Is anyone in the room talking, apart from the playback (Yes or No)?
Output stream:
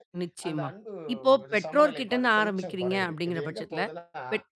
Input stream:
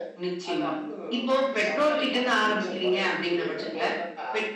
No